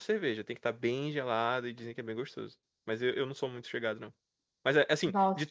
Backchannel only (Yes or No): Yes